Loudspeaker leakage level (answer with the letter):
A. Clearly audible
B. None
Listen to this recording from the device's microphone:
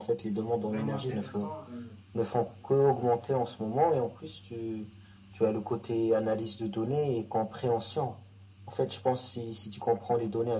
A